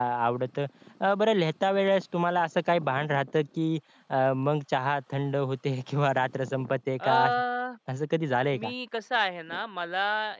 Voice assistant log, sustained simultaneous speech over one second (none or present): none